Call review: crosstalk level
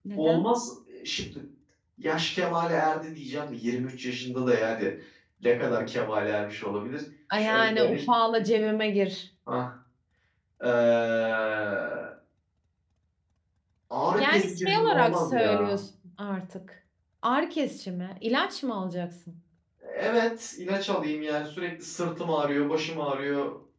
present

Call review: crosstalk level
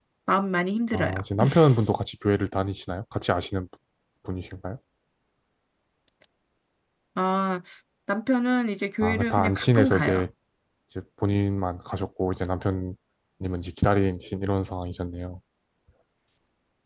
present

